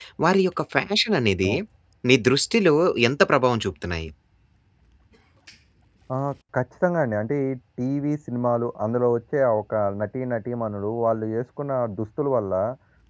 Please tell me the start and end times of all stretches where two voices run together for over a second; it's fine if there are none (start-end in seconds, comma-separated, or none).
none